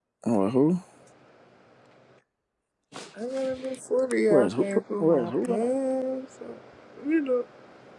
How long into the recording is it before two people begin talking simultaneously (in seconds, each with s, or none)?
4.3 s